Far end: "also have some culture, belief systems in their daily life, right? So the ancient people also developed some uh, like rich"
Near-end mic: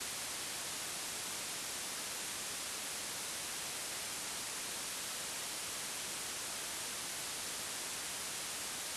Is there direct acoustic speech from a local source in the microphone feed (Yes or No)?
No